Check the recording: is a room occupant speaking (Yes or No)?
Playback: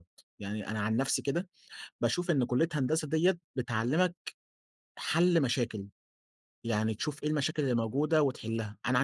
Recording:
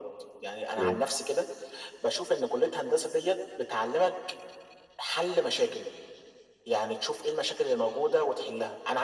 Yes